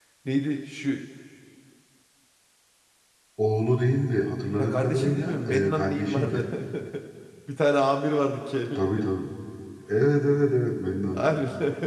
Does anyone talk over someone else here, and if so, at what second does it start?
5 s

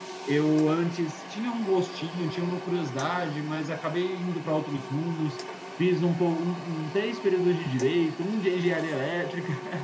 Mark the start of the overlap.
none

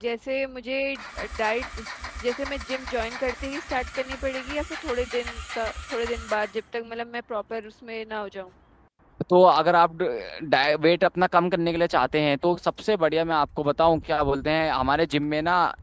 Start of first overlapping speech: none

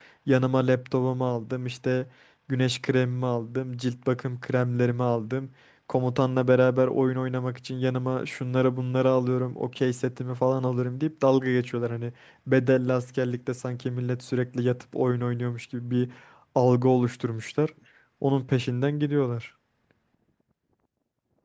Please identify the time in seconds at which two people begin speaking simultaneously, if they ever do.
none

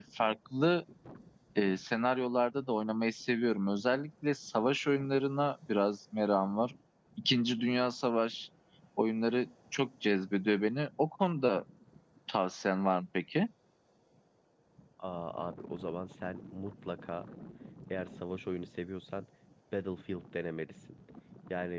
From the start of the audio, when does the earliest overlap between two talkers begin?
none

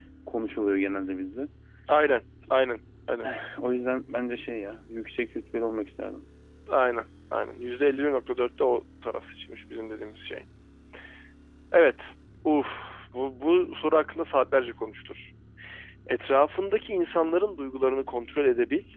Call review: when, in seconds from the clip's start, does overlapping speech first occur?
none

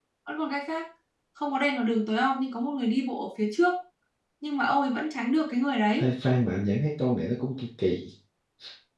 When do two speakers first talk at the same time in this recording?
none

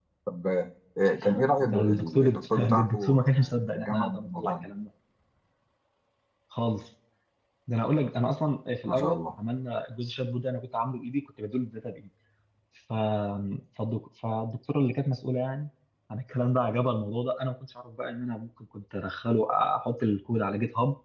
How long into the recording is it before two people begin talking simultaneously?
2 s

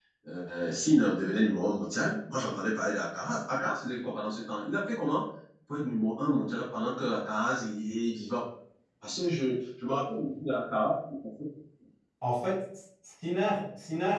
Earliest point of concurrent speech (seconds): none

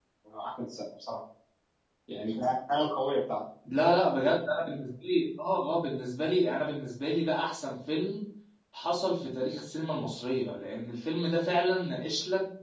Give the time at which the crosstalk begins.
none

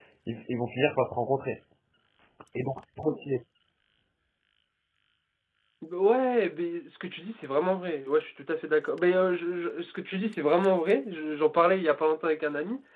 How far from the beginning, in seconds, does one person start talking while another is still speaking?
none

